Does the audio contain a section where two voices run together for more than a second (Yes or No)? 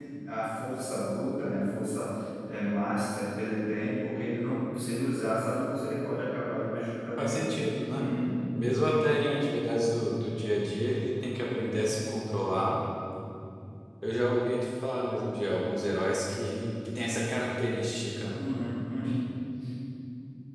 No